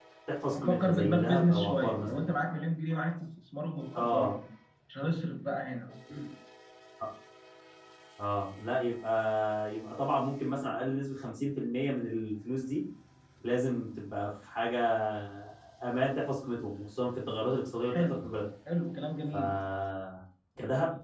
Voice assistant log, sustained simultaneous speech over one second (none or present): present